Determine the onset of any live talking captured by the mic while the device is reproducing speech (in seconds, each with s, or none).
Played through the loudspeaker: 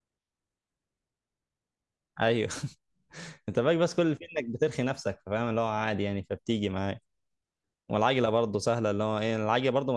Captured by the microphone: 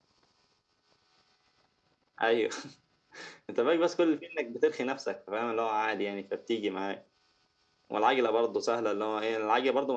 none